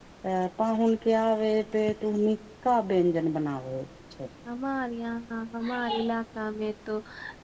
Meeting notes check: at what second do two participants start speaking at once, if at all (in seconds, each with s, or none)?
none